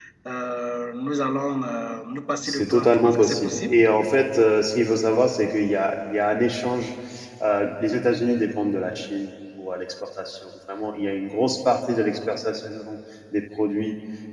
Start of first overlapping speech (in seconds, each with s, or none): 2.4 s